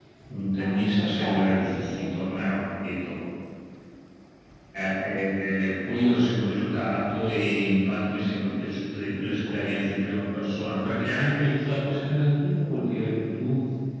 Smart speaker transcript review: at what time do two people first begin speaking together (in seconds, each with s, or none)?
0.6 s